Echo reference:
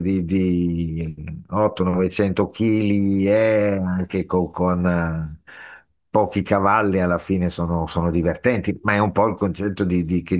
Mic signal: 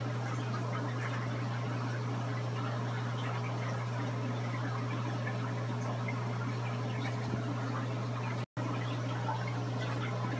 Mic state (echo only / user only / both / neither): neither